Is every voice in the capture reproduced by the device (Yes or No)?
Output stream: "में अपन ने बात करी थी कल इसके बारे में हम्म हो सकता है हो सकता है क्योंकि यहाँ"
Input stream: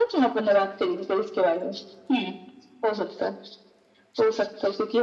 Yes